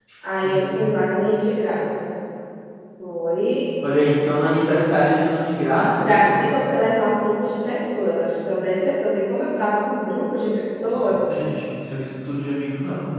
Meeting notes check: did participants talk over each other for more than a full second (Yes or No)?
No